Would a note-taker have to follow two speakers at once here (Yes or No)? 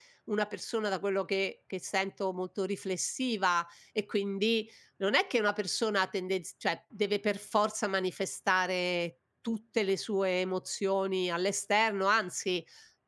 No